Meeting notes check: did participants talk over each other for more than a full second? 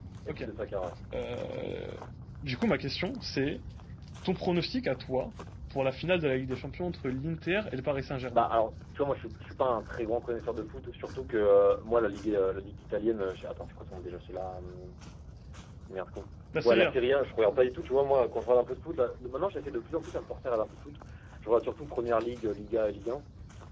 No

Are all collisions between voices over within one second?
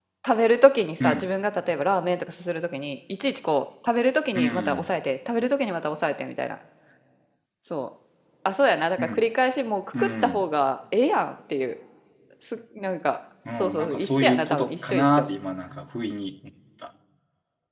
No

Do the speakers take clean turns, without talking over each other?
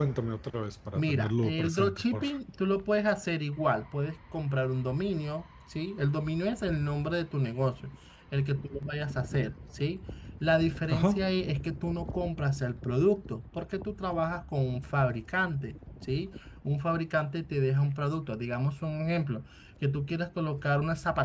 No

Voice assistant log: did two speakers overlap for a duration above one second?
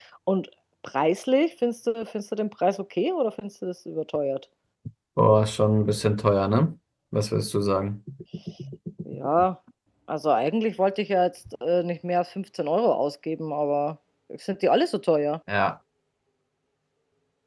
No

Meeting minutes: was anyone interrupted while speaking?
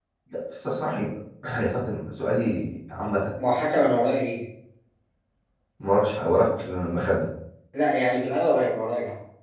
No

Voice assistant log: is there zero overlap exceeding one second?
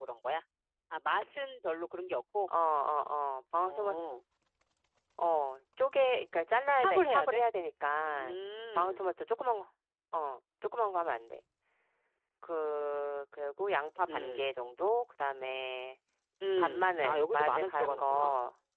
No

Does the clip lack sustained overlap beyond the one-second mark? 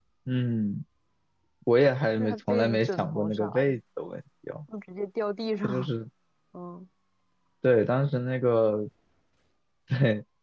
No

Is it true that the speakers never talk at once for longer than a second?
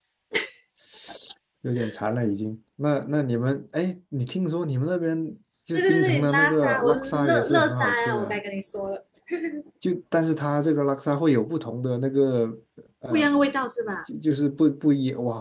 No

